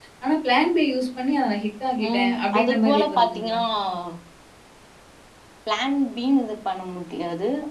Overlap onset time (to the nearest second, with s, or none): 2 s